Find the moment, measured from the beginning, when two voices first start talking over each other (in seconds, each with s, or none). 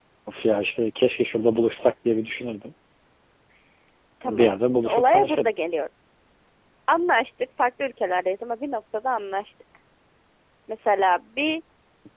4.2 s